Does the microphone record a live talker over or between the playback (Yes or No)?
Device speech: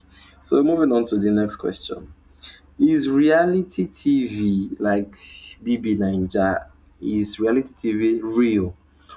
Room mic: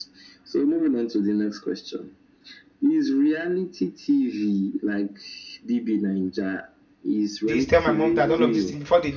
Yes